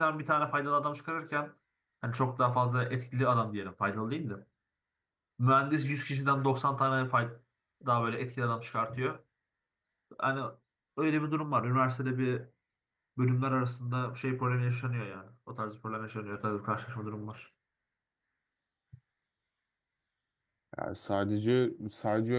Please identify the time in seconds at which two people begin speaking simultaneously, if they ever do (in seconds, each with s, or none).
none